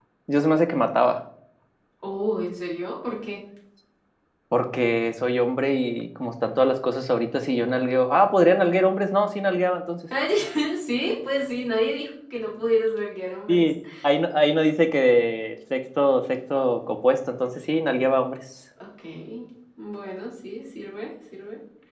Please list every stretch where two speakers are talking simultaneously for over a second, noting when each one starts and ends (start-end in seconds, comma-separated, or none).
none